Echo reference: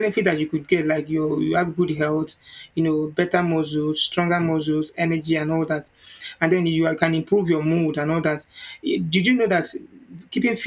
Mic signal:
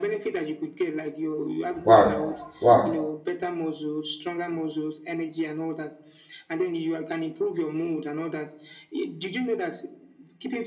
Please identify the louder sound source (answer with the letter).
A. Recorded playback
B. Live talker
B